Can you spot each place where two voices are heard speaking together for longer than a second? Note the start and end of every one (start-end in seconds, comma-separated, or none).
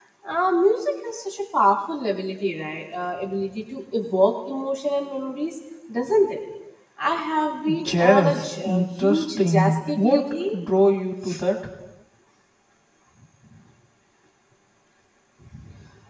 7.8-10.5